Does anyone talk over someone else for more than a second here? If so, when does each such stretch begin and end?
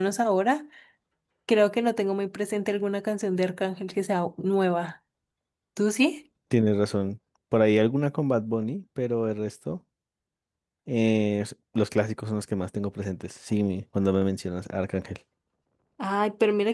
none

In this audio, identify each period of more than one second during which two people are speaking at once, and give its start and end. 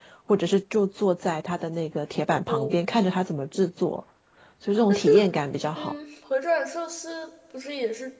none

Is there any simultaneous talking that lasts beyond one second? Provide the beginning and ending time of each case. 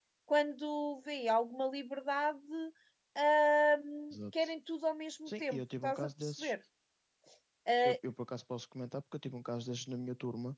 5.3-6.5

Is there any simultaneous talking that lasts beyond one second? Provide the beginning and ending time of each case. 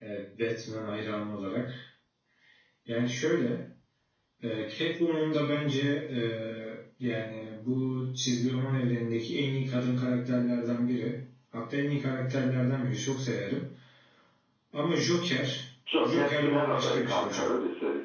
16.0-17.5

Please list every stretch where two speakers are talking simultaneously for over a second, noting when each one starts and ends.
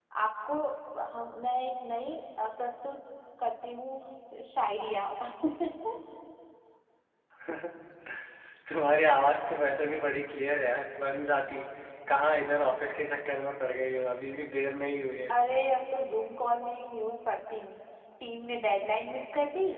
none

